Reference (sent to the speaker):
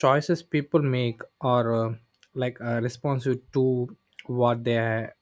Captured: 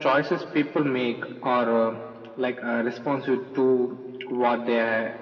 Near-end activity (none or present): none